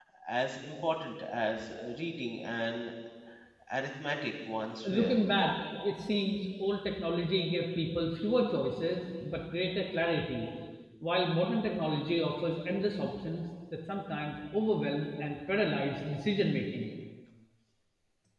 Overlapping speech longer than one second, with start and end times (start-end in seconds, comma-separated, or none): none